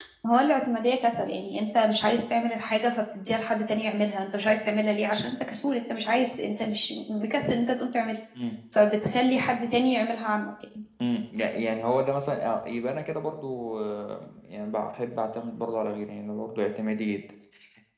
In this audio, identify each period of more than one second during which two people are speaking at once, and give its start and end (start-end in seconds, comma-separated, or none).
none